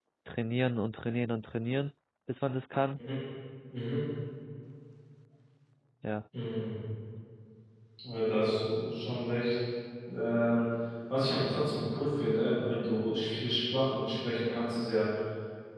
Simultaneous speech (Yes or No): No